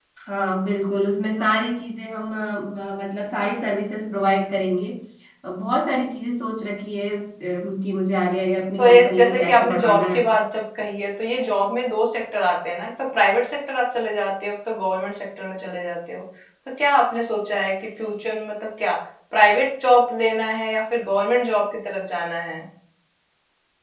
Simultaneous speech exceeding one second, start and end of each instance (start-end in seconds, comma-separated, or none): 8.8-10.2